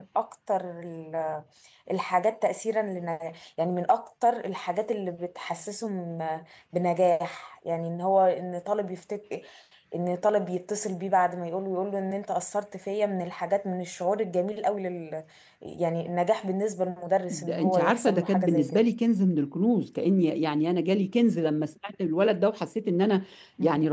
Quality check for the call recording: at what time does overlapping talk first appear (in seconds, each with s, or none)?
17.3 s